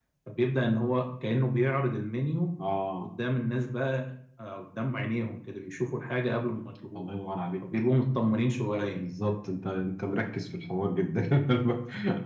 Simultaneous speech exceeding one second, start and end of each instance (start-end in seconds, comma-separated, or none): none